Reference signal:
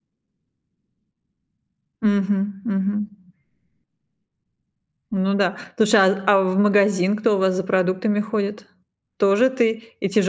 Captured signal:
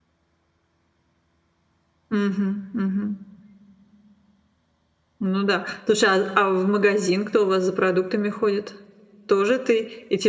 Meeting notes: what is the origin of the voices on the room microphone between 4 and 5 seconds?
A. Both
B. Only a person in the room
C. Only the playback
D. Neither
D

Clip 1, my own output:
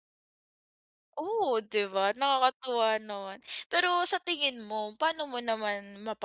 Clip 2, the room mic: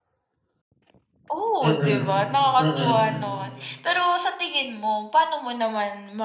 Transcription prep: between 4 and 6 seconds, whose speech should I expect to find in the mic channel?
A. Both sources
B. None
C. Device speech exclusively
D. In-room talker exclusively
C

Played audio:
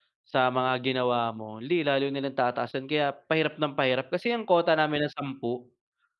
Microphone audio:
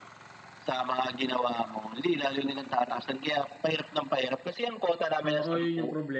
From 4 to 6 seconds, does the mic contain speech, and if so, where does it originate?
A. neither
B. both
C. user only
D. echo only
B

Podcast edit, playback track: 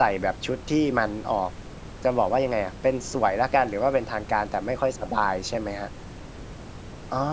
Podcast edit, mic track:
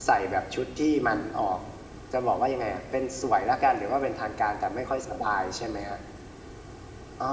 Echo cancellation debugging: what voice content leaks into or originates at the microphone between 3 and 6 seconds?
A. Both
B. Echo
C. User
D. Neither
B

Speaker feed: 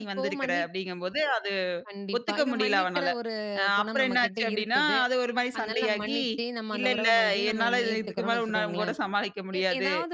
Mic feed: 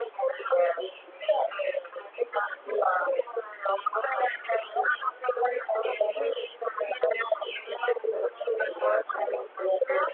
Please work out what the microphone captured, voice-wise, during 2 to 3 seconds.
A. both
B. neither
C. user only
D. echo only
D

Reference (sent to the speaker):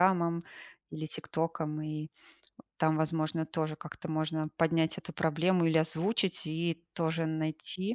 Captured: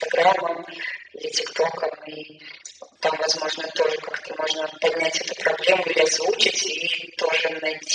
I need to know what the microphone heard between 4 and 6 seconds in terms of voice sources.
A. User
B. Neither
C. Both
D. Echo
D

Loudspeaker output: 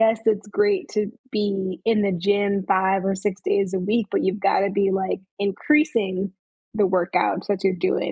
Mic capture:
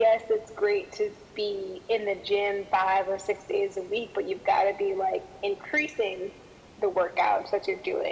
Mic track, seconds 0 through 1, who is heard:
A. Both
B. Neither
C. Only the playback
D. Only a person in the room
C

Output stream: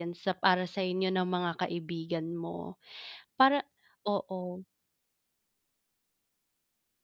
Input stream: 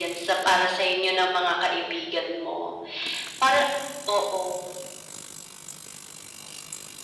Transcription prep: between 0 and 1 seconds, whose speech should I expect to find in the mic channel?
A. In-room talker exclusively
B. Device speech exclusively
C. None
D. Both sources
B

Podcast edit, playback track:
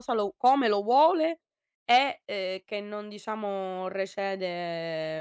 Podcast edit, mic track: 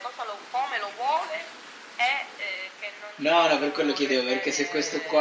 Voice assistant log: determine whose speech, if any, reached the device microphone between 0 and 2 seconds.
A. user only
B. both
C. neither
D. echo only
D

